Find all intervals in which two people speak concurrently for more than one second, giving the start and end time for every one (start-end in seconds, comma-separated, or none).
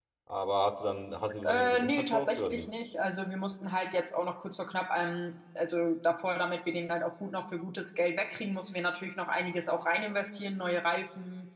1.4-2.6